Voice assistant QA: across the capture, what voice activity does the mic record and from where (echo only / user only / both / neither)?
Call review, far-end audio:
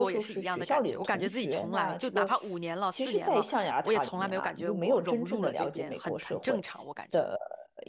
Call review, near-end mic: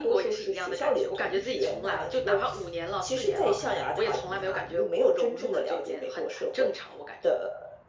echo only